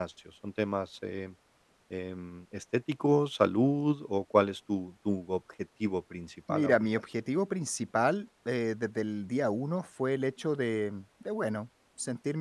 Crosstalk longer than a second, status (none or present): none